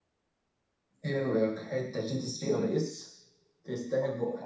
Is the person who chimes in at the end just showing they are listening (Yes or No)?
No